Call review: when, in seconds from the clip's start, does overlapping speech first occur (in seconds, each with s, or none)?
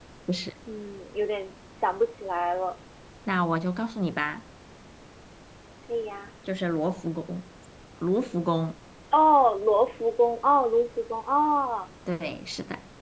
none